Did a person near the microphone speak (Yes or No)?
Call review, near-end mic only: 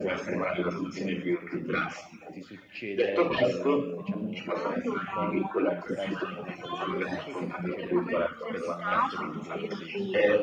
Yes